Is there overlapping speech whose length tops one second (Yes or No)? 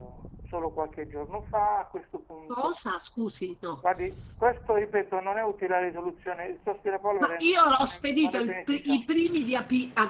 Yes